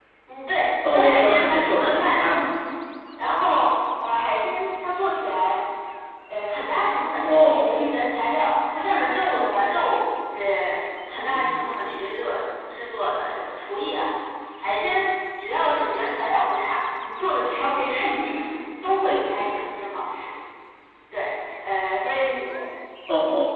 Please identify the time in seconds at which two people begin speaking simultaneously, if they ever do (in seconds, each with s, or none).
0.9 s